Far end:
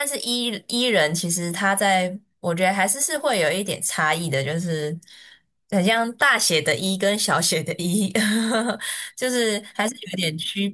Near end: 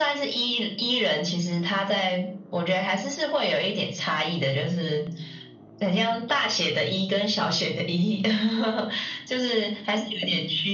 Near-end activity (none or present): none